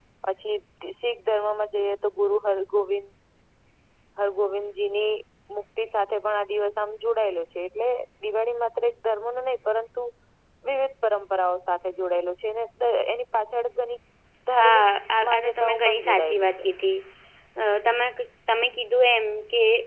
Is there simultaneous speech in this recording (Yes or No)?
Yes